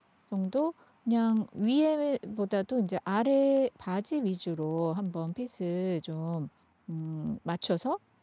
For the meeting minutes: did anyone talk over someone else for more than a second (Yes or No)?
No